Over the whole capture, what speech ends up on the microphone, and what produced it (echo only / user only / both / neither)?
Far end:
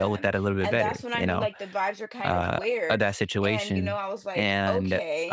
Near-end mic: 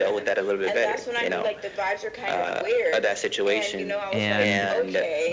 both